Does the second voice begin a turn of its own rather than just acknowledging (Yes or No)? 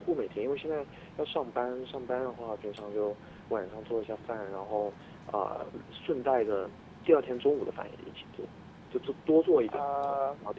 Yes